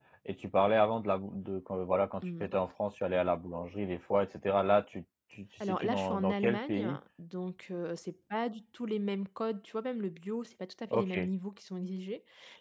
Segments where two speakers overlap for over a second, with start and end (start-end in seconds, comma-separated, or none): 5.7-7.0